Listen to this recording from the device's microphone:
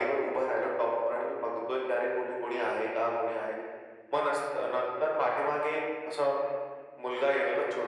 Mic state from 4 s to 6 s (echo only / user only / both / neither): echo only